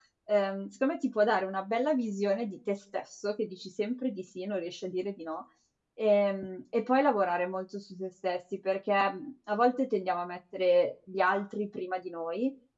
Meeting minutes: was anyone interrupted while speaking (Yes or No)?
No